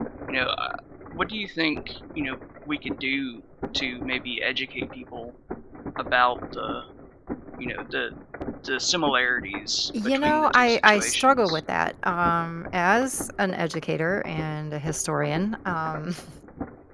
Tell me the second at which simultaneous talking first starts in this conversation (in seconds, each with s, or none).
9.9 s